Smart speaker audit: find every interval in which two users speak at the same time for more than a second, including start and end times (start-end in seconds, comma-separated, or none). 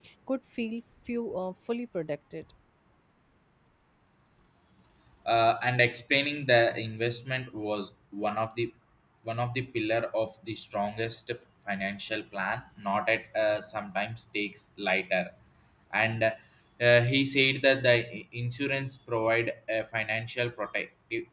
none